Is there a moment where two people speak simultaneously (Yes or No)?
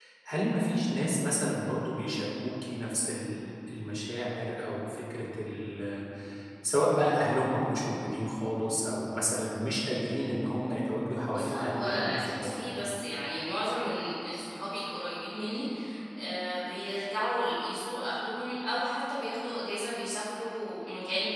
Yes